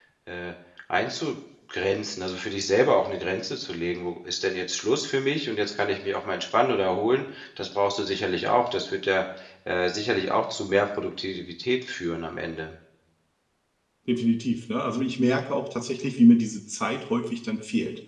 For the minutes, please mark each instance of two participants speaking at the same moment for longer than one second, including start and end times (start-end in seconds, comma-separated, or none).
none